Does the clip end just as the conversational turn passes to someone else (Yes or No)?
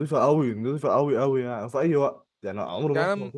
No